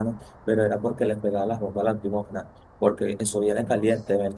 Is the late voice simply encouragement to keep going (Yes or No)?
Yes